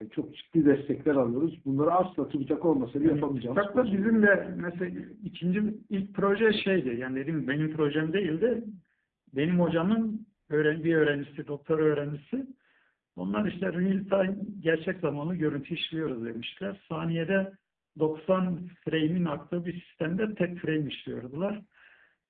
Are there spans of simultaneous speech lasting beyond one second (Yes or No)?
Yes